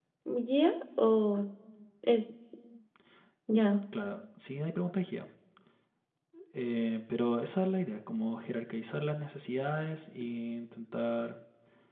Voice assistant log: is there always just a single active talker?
Yes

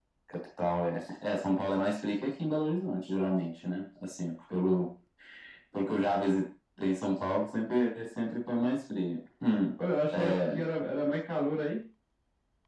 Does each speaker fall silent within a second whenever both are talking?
Yes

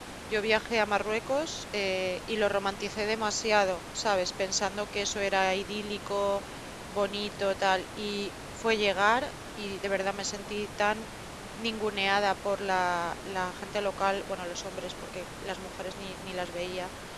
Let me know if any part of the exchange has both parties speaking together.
No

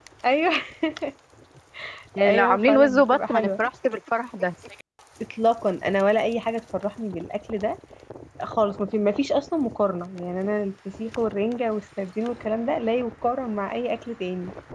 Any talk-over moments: Yes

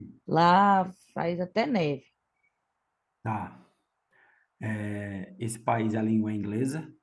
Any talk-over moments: No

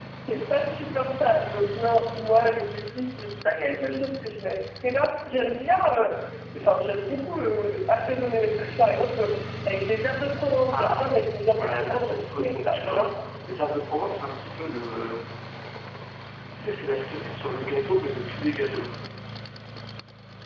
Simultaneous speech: Yes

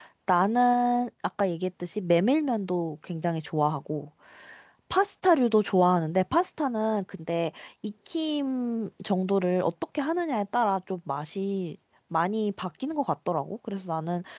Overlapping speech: No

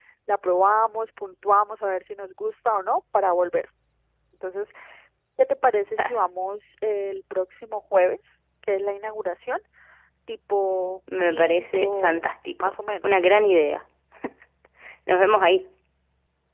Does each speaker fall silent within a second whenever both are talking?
No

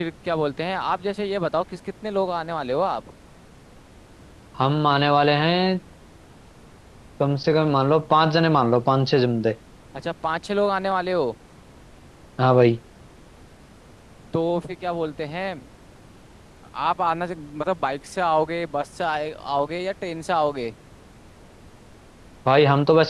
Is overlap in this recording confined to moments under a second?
Yes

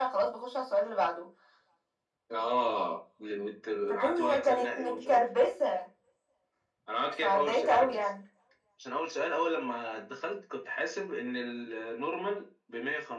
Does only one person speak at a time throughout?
No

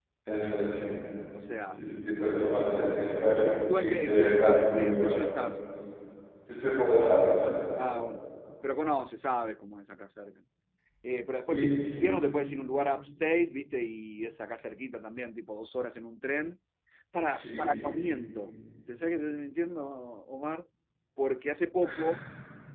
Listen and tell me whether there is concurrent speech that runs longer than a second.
Yes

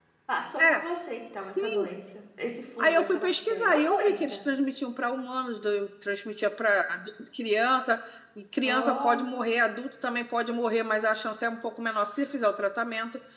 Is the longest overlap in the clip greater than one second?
Yes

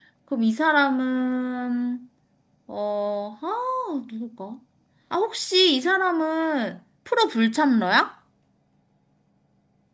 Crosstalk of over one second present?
No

